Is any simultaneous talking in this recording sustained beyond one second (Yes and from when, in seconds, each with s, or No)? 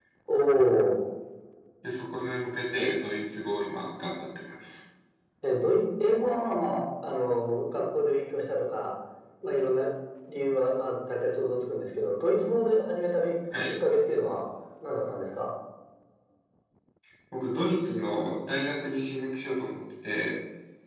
No